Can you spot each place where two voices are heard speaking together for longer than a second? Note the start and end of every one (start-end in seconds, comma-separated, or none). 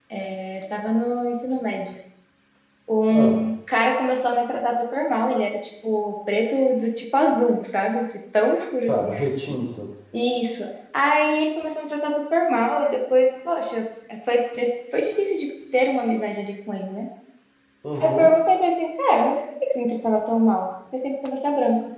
none